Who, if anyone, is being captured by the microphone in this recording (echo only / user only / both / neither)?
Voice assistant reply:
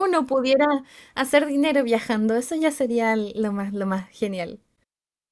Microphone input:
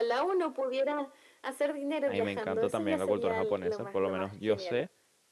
both